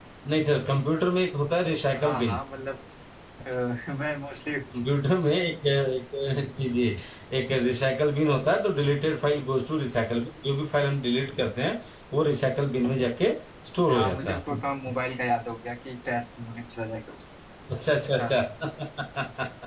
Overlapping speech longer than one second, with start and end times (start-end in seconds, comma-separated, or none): none